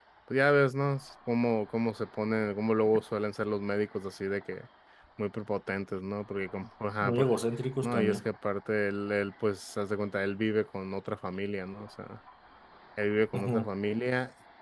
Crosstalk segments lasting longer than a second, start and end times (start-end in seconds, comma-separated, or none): none